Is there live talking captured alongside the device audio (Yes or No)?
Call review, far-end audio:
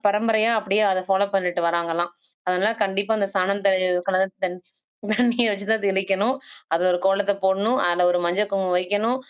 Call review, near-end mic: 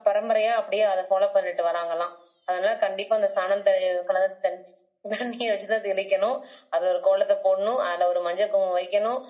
No